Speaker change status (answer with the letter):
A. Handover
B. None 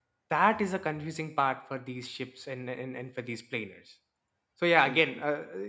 B